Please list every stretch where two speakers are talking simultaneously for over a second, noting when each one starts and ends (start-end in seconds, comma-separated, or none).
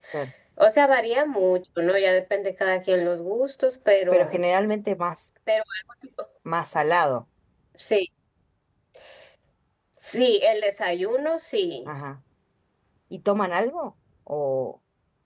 none